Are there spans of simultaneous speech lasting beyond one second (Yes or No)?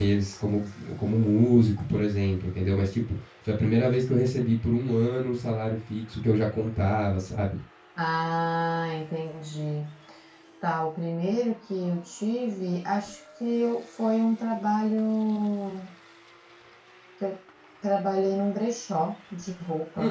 No